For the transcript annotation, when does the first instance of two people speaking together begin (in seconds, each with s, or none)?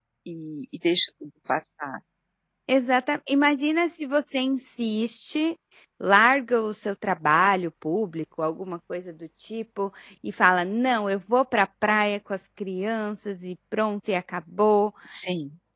none